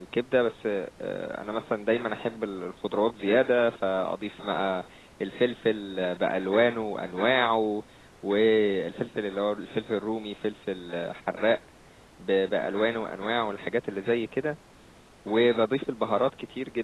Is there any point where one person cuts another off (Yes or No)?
No